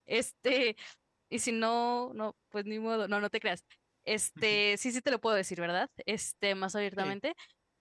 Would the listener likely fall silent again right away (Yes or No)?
Yes